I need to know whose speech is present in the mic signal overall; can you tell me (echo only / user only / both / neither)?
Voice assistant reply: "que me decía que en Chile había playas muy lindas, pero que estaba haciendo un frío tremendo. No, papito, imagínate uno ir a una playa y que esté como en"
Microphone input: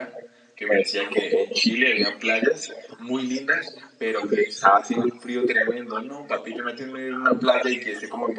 echo only